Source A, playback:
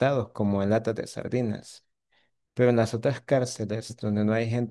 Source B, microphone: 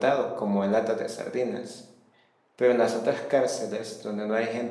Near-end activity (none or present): none